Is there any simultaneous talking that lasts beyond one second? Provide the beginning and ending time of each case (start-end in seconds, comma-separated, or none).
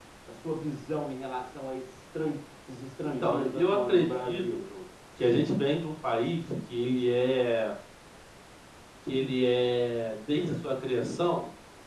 3.2-4.4